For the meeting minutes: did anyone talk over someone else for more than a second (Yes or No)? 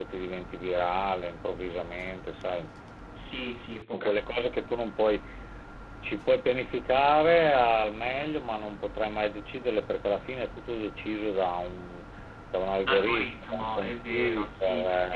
Yes